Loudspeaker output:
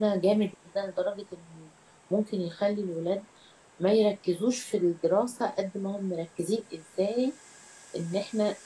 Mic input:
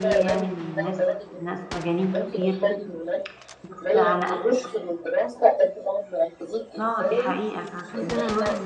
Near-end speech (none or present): present